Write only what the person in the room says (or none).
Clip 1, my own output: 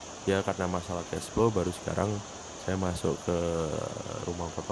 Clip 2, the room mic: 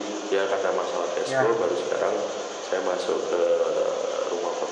Ya,